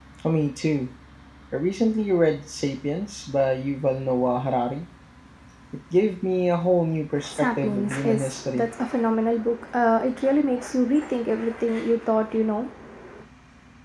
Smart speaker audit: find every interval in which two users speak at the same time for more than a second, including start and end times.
7.3-8.7

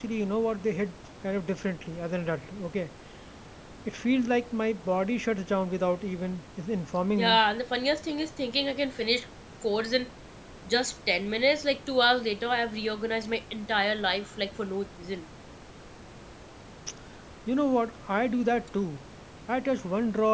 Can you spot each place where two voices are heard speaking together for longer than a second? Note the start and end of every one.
none

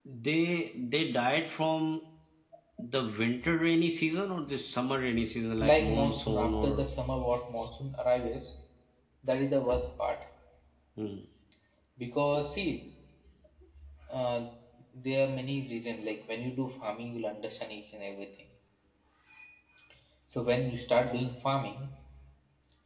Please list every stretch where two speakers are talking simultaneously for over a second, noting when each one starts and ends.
5.6-6.9

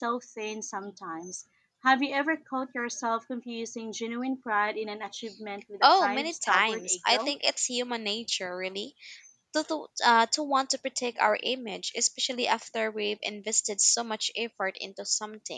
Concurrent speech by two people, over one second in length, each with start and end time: 5.8-7.3

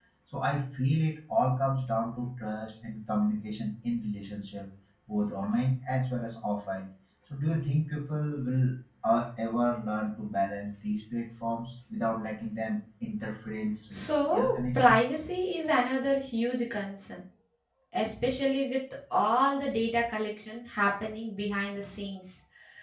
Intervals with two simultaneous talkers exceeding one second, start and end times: 13.9-15.2

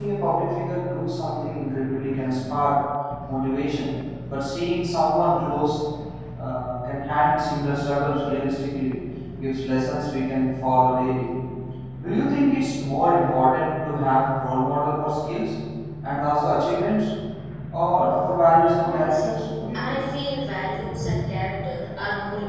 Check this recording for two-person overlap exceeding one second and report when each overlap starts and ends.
18.8-20.0

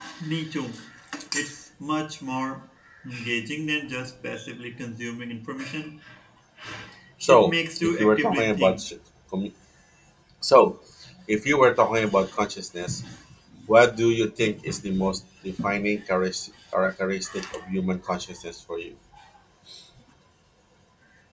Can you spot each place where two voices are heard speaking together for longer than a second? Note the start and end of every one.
7.3-8.8

